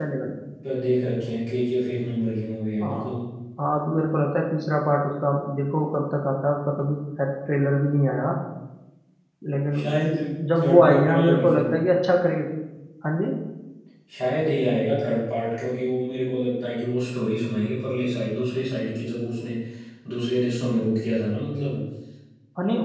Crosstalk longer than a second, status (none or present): present